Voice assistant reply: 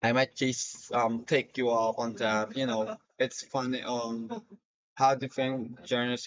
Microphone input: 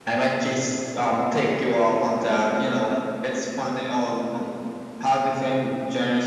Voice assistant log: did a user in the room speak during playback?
No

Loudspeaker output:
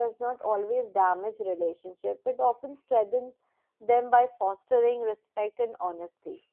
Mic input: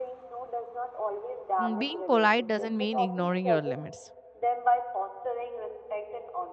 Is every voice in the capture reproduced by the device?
No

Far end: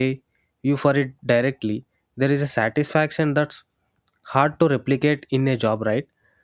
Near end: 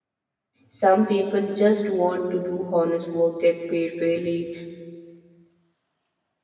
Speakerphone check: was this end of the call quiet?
No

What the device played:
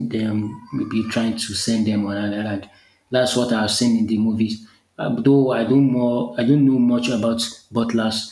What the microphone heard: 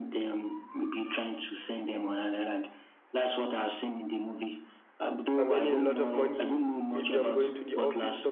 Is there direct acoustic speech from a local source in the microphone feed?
Yes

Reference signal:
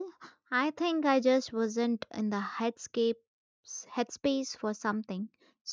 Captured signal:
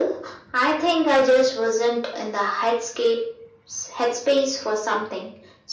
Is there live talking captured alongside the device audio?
No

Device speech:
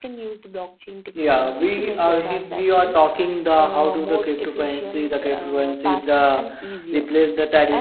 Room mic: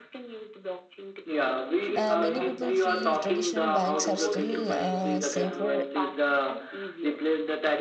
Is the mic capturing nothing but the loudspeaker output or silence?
No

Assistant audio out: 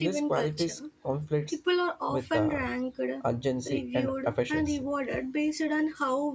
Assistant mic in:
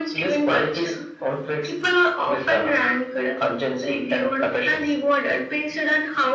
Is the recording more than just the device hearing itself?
No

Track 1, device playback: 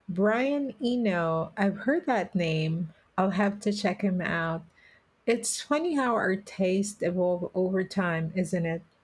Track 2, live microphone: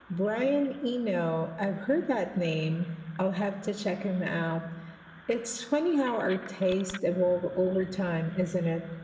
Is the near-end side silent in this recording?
Yes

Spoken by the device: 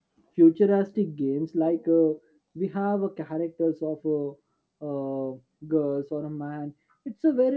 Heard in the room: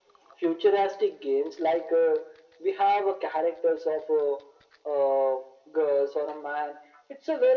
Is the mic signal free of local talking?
Yes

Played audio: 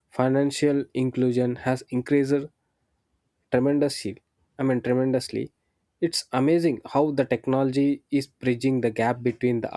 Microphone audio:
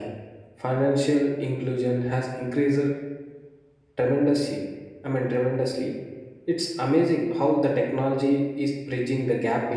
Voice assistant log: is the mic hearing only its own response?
Yes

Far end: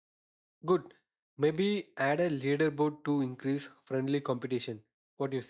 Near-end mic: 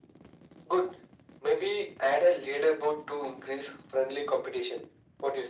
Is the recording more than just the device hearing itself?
No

